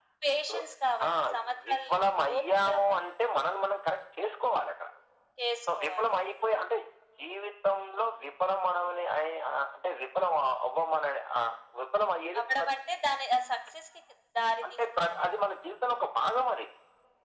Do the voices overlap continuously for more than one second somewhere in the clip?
Yes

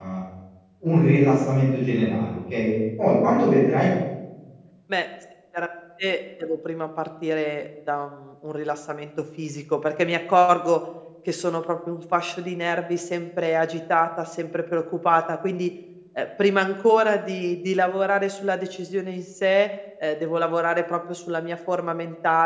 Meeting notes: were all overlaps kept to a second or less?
Yes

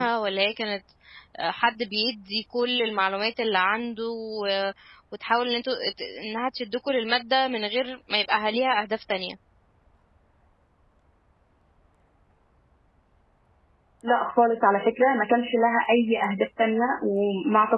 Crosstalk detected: No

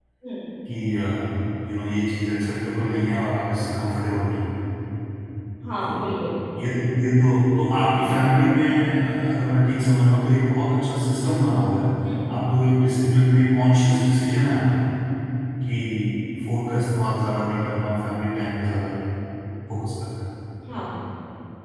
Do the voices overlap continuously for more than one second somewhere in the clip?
No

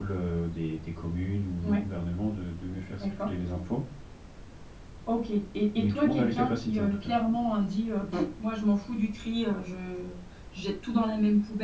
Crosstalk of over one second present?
Yes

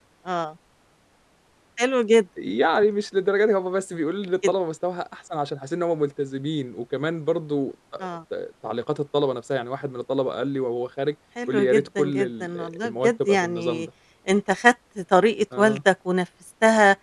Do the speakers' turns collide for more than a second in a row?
Yes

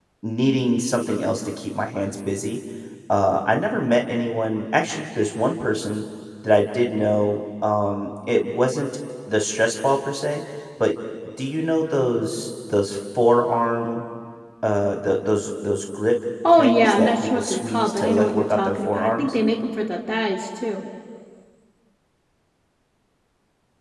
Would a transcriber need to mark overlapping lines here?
Yes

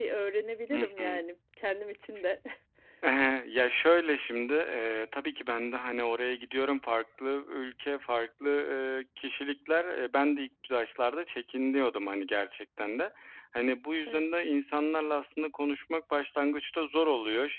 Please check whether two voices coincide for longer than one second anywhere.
No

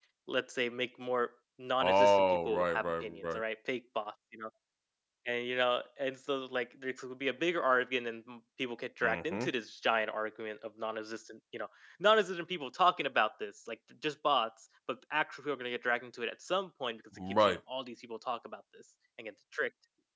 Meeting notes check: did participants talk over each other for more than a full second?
Yes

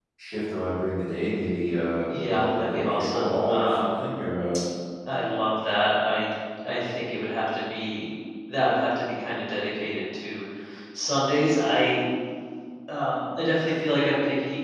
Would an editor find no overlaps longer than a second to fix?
No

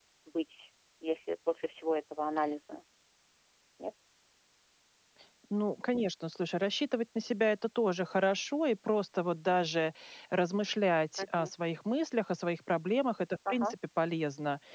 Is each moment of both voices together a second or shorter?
Yes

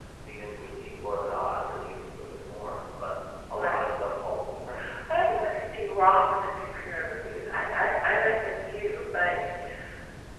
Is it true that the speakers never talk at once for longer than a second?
Yes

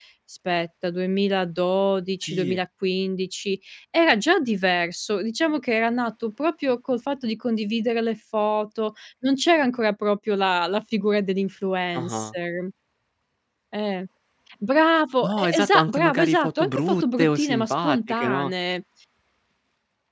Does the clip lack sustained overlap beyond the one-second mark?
No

